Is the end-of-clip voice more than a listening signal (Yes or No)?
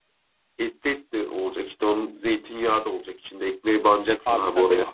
Yes